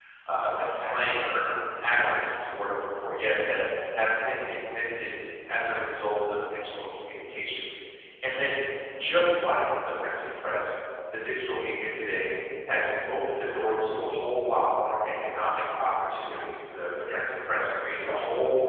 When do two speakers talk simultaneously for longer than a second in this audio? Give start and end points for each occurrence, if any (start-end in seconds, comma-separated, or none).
0.8-2.1